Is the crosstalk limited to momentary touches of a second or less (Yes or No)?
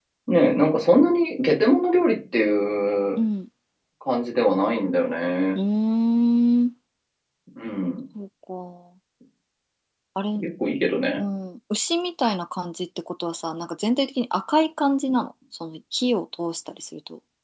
Yes